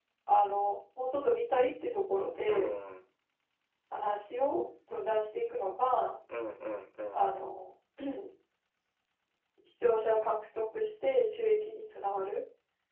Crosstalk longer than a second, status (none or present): none